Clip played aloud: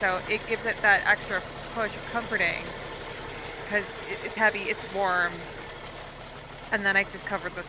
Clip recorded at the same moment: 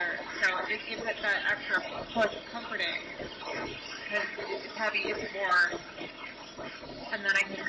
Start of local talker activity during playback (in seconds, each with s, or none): none